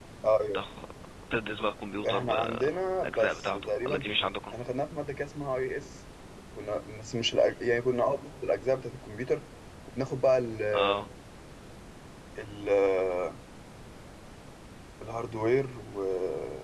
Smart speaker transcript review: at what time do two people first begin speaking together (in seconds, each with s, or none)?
2.1 s